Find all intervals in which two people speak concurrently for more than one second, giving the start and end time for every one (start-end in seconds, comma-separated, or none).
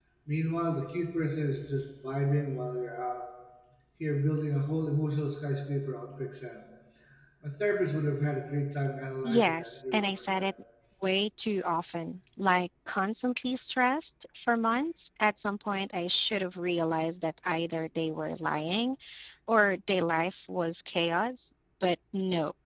9.2-10.5